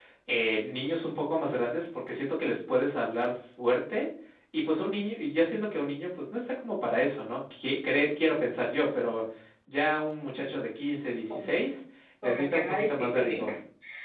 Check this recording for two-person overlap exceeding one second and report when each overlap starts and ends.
12.2-13.5

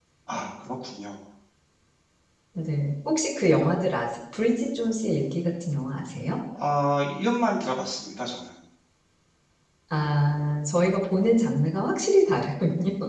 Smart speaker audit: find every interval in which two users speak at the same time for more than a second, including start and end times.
none

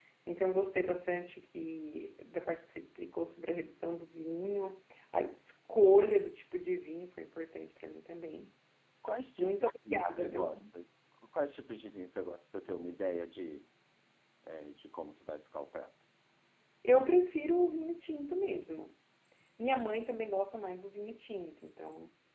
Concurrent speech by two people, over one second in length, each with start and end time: 9.4-10.6

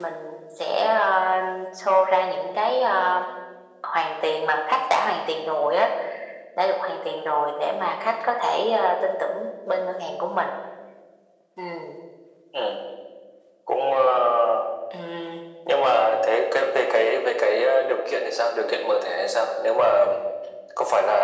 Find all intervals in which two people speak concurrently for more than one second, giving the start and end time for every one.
none

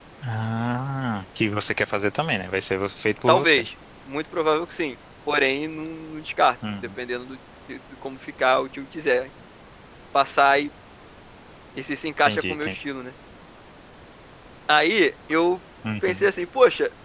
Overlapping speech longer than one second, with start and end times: none

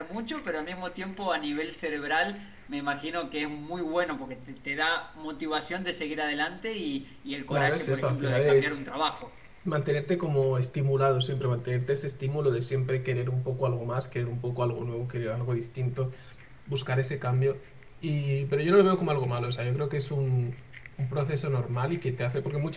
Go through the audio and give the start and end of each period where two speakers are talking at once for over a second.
7.5-8.8

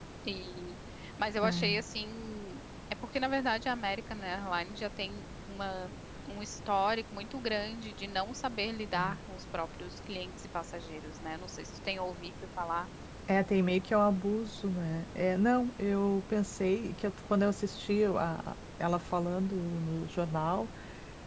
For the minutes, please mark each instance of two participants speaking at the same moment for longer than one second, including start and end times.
none

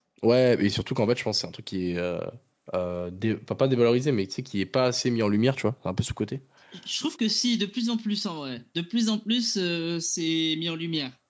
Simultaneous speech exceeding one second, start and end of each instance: none

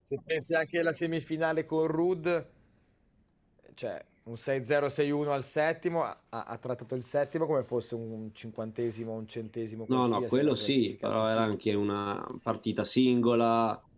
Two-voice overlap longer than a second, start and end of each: 9.9-11.5

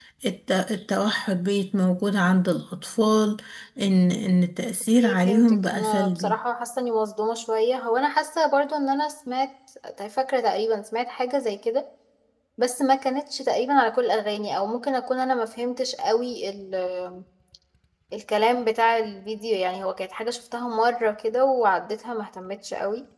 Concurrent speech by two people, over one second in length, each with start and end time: 5.0-6.3

